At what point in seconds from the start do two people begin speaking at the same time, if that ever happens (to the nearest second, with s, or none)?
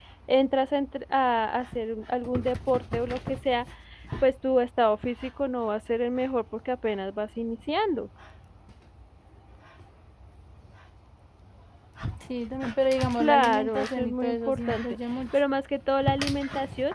13 s